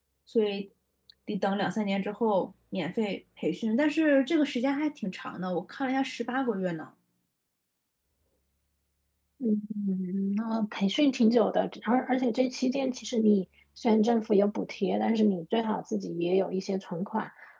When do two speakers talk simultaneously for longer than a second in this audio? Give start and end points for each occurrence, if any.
none

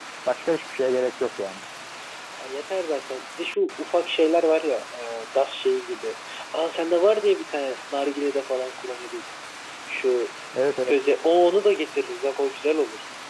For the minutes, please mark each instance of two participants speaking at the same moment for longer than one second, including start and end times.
none

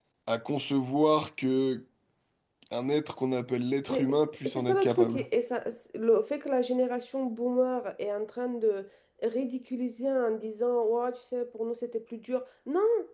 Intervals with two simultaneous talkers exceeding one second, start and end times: 3.9-5.2

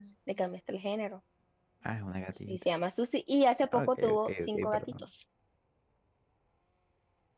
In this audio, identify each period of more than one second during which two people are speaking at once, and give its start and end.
3.7-4.9

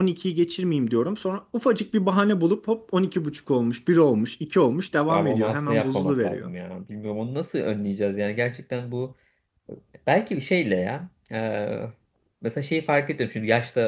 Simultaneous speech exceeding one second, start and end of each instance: 5.1-6.5

